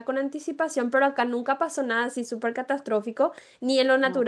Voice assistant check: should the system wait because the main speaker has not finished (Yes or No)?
Yes